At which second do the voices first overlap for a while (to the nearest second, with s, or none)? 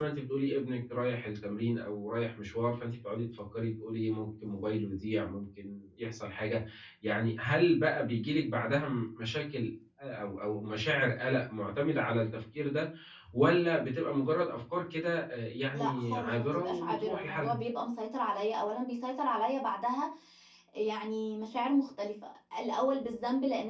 16 s